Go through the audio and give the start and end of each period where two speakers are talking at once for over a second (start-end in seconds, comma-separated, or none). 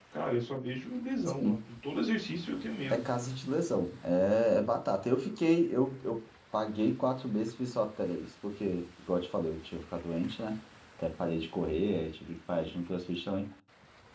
none